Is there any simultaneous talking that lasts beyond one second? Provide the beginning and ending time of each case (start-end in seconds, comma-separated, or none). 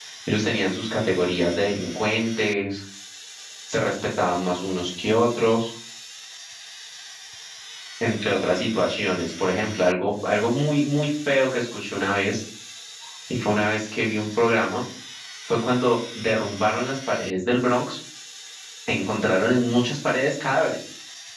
none